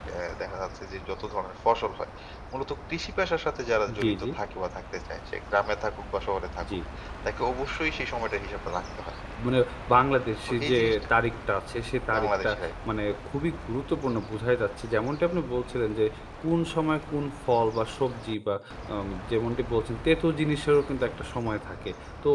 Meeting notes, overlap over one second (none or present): none